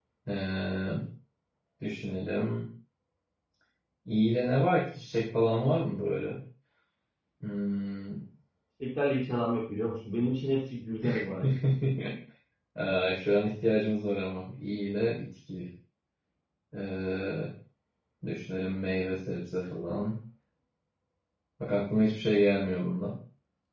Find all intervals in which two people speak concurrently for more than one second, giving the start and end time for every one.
none

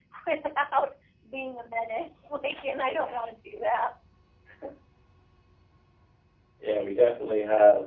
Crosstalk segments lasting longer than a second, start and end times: none

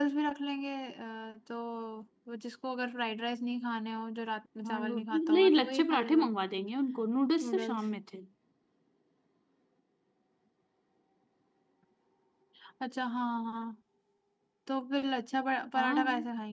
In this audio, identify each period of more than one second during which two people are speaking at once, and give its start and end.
4.6-6.3

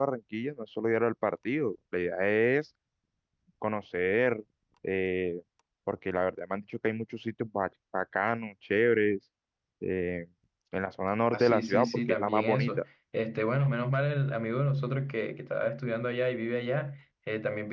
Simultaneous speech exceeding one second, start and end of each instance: 11.3-12.8

